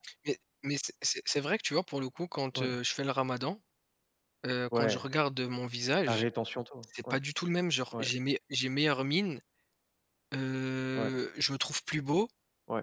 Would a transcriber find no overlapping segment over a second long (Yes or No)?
Yes